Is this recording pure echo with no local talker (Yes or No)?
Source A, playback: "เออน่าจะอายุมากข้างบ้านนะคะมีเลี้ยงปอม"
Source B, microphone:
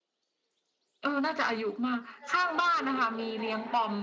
No